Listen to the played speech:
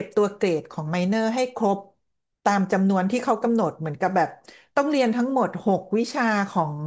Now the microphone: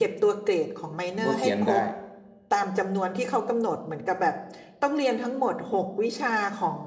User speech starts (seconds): 1.2 s

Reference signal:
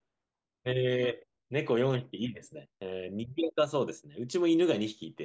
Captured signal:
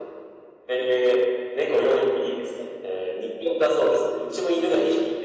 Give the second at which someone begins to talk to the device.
none

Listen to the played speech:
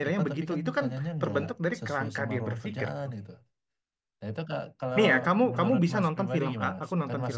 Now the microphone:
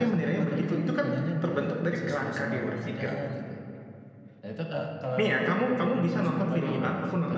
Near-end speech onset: none

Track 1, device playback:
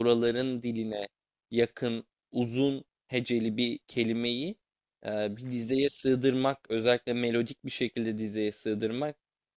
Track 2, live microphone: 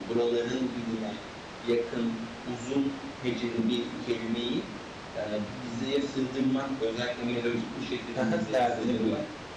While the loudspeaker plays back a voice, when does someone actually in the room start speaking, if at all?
8.1 s

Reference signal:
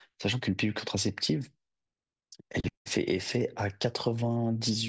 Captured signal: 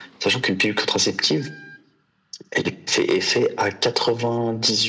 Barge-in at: none

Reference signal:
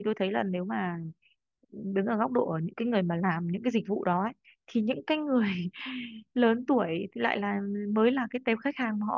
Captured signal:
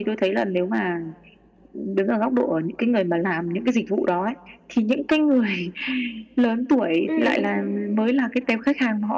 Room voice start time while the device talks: 7.1 s

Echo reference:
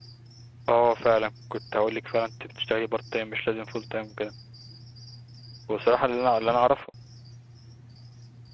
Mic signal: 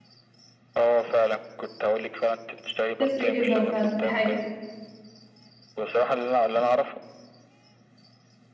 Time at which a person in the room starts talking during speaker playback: 2.9 s

